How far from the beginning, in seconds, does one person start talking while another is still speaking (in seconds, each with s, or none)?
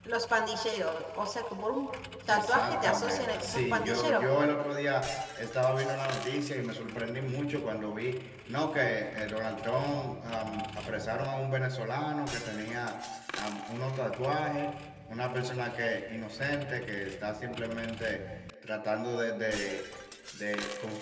2.3 s